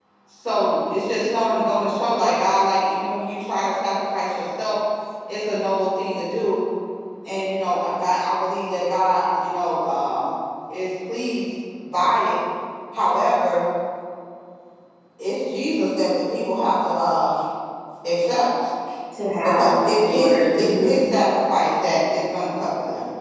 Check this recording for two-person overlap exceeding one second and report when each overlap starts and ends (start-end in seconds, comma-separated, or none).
19.4-21.0